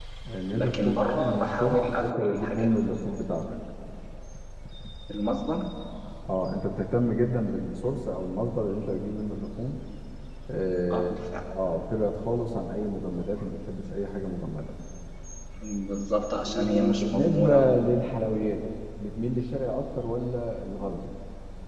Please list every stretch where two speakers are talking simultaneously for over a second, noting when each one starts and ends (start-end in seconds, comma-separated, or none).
0.5-2.8, 16.4-17.7